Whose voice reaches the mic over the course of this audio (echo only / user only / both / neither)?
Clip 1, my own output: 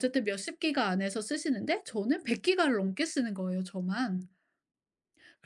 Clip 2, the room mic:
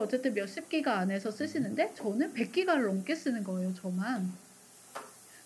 both